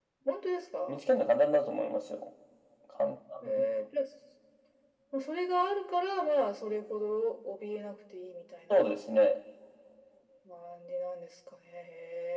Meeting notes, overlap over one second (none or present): none